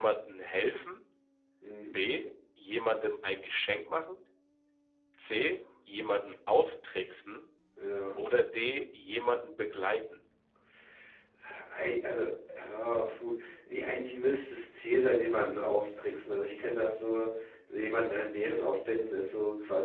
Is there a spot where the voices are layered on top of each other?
No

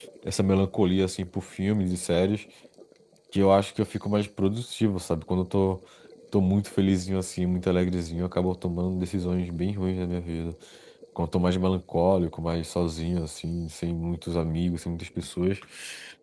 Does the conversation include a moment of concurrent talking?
No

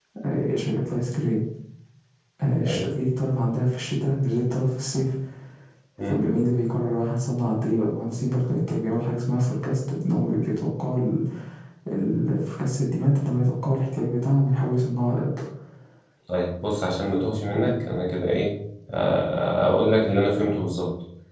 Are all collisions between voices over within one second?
Yes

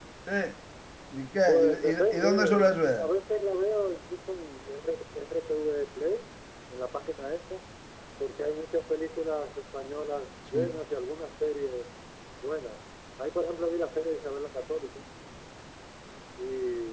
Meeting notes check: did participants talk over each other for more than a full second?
Yes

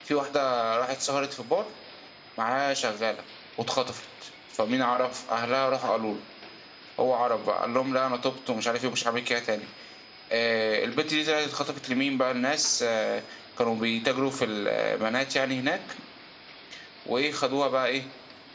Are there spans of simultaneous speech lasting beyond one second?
No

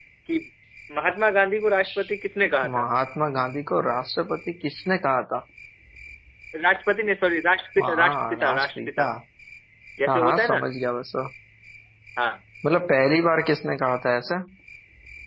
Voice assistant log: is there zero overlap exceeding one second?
No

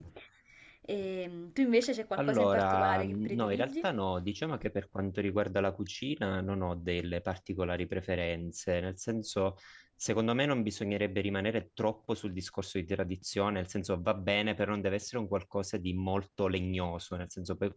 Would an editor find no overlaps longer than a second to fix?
No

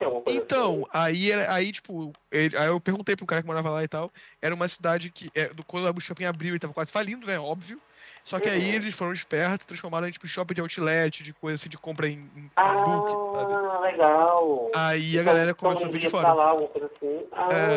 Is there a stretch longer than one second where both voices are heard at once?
Yes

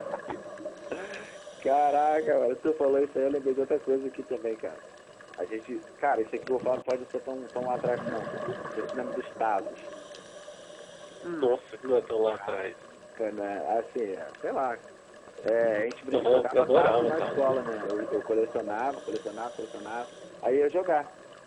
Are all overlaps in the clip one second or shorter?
No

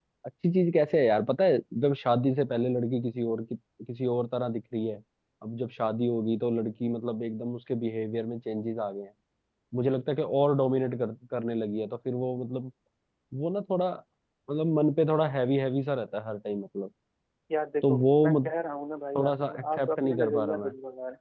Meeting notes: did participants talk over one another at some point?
Yes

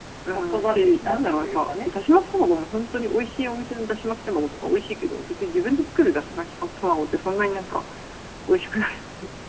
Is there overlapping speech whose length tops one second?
Yes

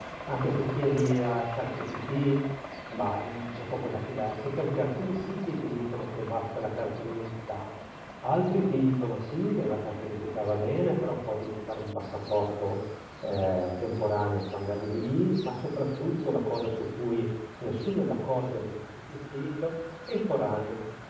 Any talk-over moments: No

